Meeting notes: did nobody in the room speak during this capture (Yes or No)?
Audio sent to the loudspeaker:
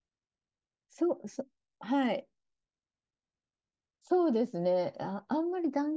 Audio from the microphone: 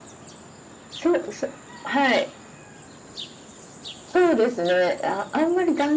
Yes